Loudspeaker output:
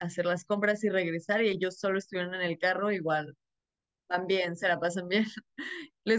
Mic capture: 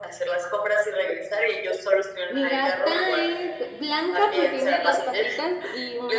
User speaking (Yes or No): Yes